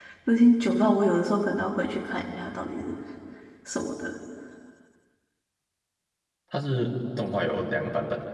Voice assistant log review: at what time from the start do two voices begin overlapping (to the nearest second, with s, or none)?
none